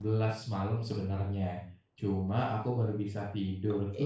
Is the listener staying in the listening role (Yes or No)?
Yes